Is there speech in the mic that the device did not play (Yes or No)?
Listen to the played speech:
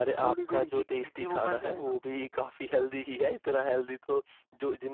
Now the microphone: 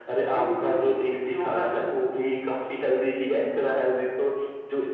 No